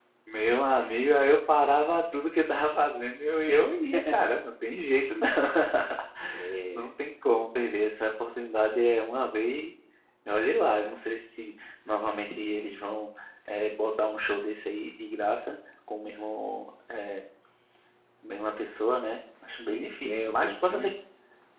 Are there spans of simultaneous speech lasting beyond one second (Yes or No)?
Yes